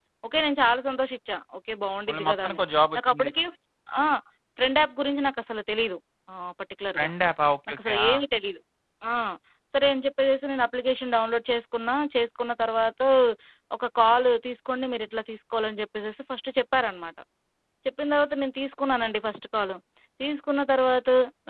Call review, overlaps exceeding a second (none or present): none